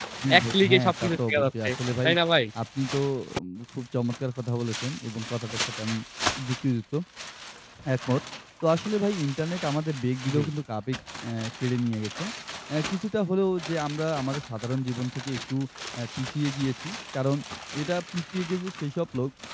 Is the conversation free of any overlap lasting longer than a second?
No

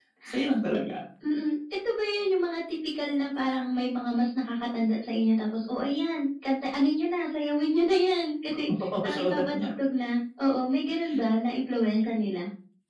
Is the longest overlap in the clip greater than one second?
Yes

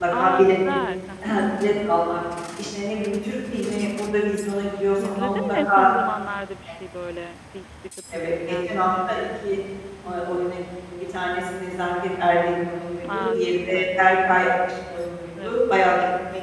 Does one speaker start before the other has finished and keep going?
Yes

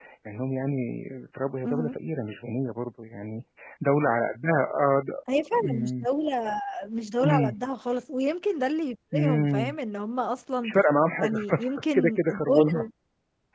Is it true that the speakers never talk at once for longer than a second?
No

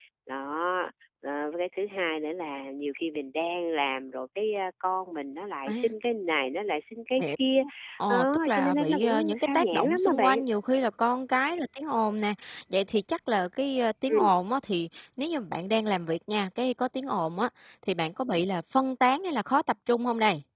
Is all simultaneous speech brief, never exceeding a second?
No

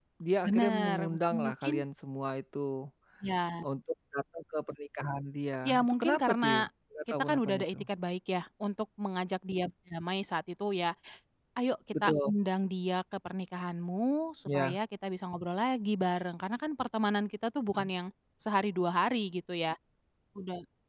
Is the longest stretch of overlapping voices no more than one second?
No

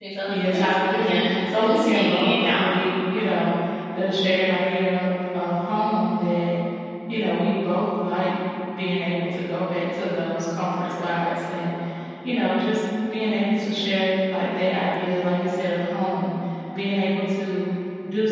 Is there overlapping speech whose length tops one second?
Yes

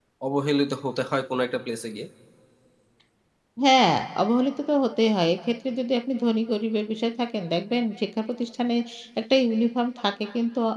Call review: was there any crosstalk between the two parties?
No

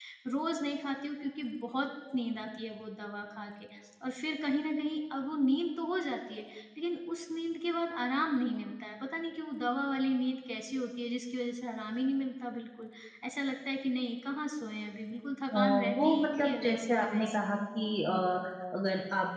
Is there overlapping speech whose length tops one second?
Yes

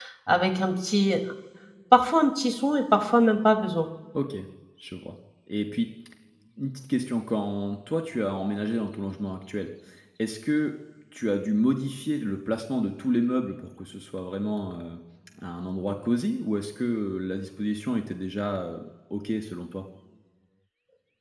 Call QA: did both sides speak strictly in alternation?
Yes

